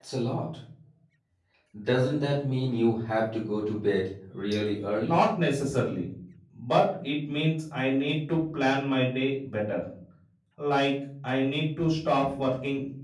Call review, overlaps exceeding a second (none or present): none